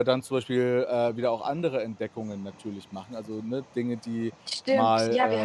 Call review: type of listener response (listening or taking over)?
taking over